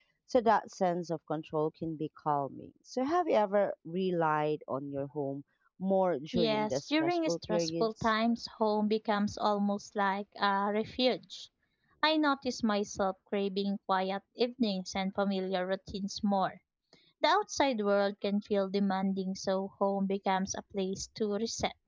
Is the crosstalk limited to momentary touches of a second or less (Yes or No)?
No